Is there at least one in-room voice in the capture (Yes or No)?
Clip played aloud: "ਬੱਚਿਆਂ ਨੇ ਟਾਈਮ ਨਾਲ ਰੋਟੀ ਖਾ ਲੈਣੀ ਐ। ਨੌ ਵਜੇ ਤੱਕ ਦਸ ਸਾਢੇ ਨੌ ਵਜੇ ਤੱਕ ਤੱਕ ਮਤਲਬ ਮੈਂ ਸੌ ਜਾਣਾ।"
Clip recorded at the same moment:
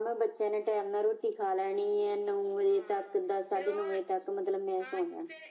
Yes